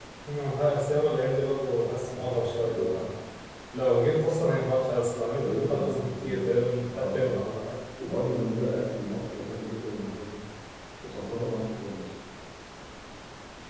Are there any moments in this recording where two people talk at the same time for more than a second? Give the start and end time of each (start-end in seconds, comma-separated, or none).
5.2-7.5